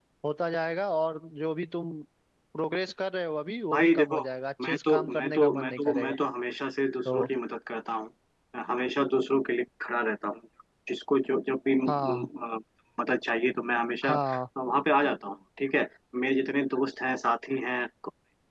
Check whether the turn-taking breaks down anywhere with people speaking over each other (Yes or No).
Yes